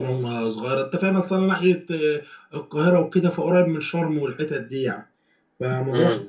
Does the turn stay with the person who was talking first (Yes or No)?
No